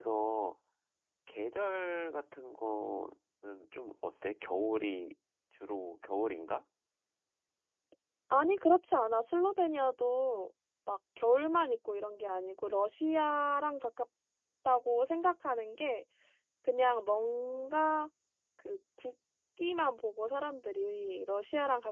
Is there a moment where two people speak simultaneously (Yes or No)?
No